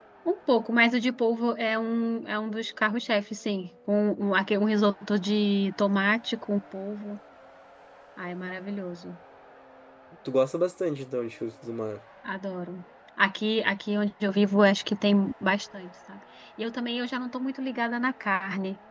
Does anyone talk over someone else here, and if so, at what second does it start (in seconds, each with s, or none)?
none